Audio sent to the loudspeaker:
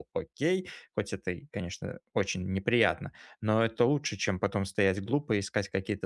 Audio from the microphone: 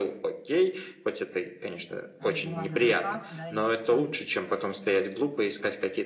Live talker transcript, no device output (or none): А, с бумагой в руках, да, и читаешь.